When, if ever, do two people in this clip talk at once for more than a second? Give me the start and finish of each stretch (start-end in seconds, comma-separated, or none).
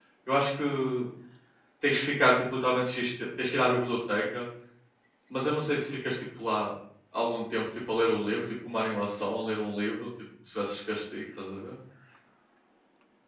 none